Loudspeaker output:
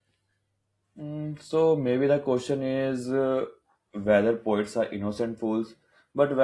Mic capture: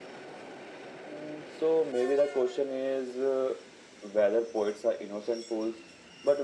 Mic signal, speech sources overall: echo only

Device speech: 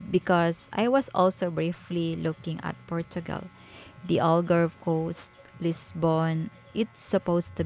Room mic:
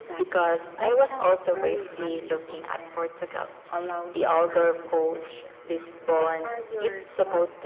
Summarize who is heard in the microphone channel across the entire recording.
both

